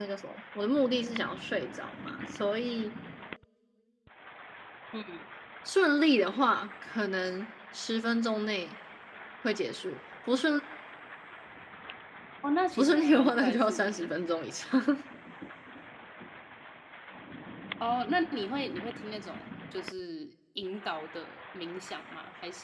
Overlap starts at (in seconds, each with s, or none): 12.8 s